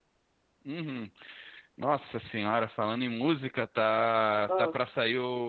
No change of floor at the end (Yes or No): Yes